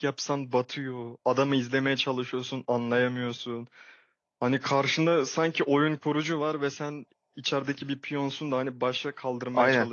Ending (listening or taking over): taking over